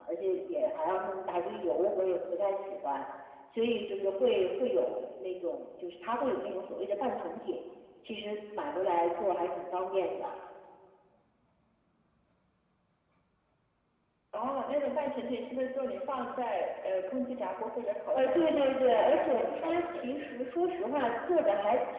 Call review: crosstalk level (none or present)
present